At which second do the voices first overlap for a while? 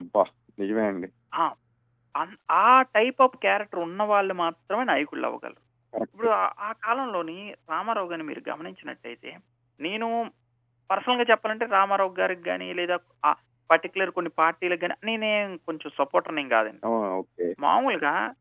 none

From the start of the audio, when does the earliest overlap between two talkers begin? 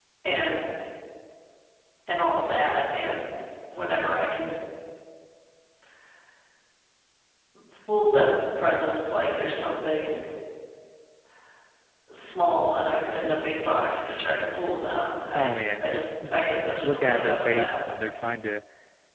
15.3 s

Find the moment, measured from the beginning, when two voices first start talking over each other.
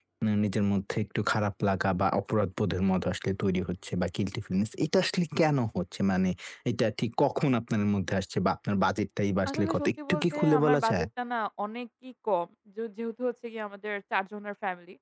9.5 s

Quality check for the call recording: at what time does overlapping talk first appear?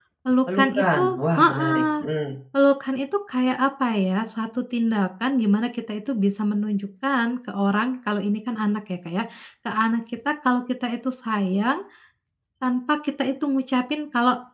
0.5 s

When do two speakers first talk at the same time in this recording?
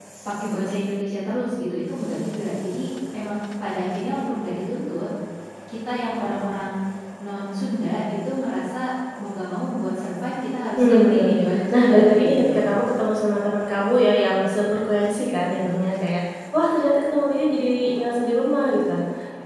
10.8 s

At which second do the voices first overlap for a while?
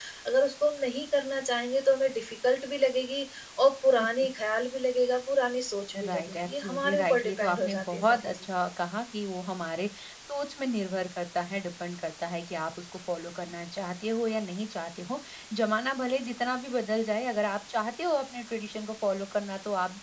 5.9 s

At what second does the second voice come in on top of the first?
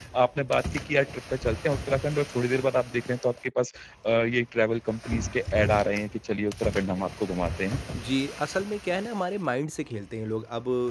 none

